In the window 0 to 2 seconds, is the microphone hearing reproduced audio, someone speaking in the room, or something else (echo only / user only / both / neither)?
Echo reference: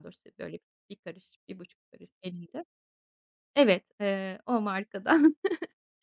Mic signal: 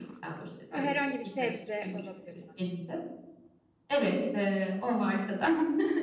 both